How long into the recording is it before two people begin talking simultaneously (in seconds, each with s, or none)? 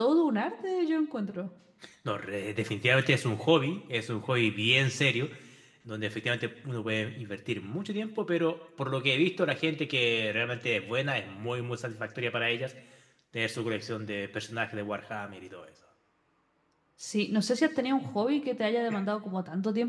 none